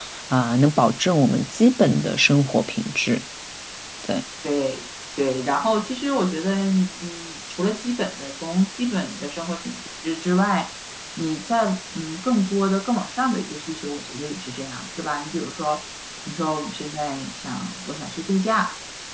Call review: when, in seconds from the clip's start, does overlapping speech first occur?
none

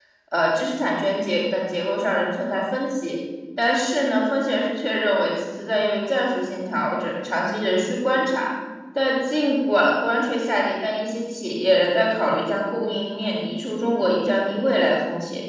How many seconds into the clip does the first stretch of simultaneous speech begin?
none

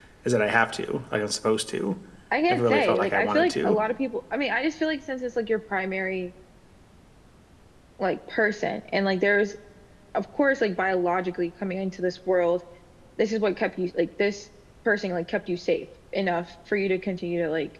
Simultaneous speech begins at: 2.5 s

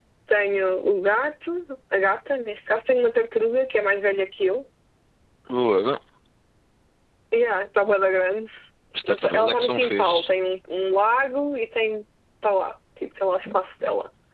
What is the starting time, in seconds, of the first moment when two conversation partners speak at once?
9.1 s

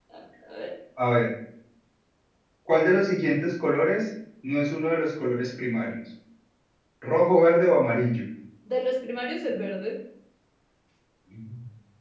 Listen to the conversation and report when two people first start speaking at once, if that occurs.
none

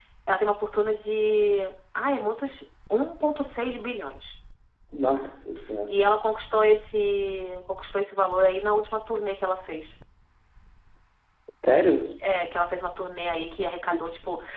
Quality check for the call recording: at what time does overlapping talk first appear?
none

